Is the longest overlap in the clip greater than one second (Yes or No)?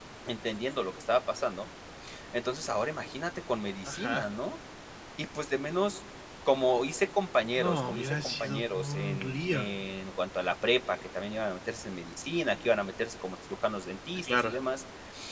Yes